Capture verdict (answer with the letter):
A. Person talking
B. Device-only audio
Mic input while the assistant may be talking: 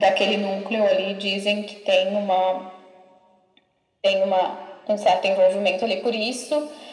B